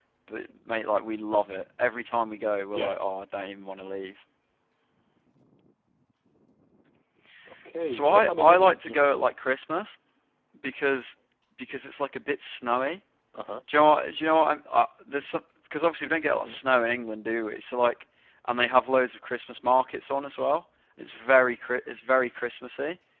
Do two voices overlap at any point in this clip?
Yes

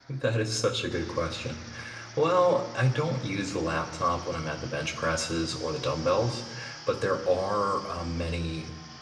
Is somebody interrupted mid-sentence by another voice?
No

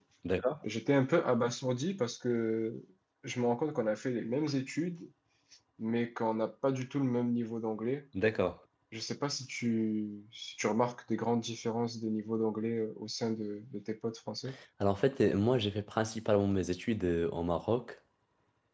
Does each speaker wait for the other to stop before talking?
Yes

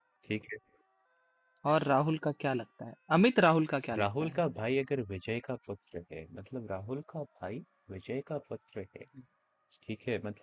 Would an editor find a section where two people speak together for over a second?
No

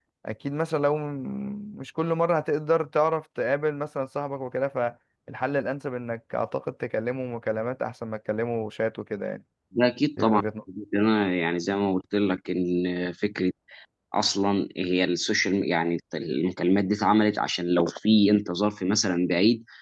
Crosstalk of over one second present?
No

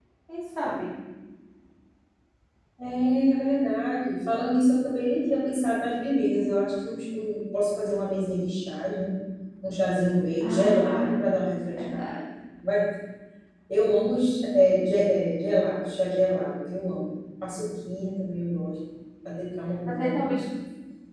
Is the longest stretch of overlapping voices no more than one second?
No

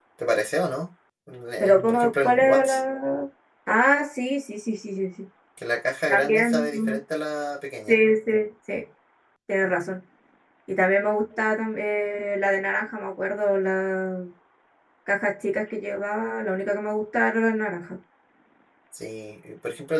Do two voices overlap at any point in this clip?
Yes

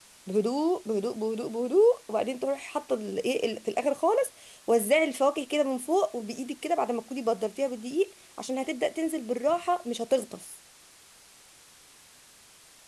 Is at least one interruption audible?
No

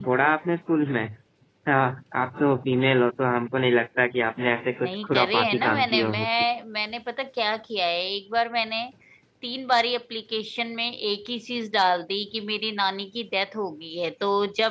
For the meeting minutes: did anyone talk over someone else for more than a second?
Yes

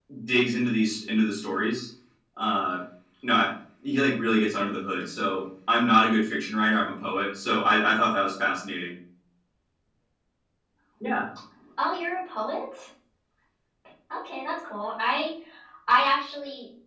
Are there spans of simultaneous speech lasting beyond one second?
No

